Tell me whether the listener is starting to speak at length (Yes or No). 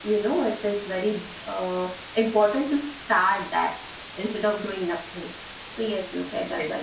Yes